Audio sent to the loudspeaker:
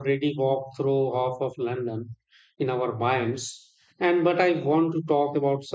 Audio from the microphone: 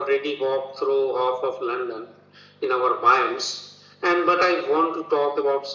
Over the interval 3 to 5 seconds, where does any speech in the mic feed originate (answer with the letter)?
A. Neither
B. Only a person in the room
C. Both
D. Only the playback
D